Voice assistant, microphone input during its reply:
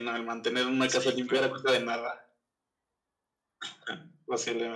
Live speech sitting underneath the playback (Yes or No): Yes